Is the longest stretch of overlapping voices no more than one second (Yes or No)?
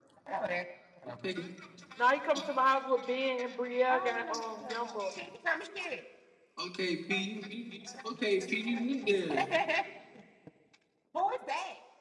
No